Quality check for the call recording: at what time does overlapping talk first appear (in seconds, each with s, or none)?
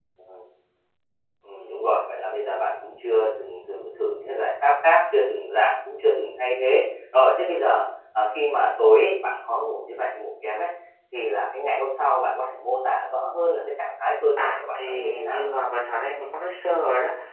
14.4 s